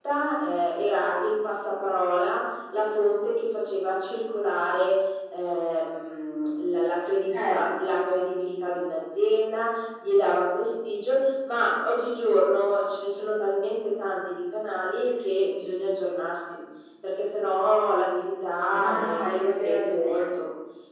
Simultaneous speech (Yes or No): Yes